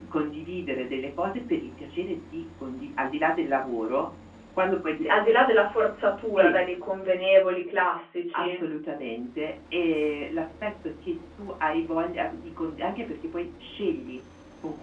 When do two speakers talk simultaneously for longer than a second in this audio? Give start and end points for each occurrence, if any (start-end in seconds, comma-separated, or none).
none